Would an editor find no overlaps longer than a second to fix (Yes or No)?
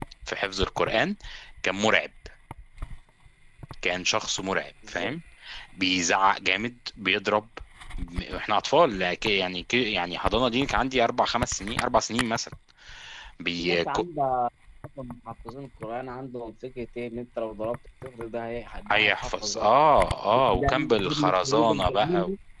No